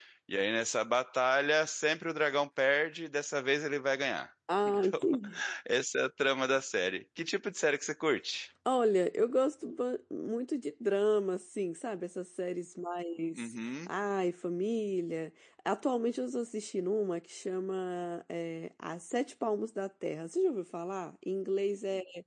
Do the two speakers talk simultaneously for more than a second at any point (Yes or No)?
No